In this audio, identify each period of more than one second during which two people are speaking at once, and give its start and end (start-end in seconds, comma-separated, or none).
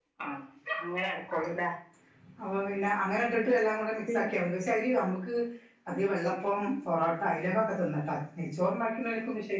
none